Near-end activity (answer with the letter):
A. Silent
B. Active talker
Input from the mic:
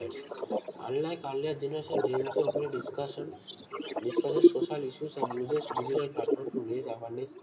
B